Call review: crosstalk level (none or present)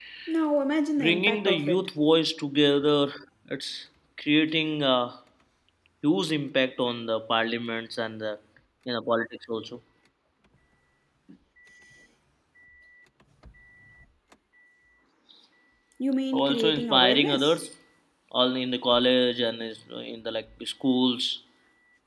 present